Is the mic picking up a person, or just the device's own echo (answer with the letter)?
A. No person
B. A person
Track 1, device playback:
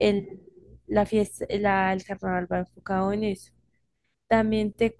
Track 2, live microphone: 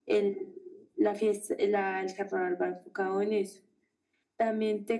A